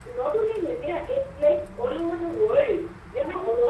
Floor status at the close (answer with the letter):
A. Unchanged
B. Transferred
B